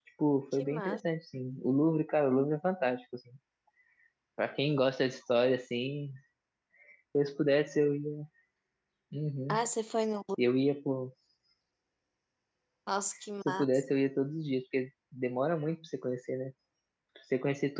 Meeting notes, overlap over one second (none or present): none